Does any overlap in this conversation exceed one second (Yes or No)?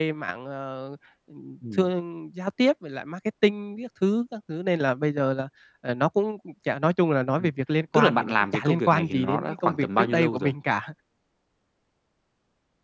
Yes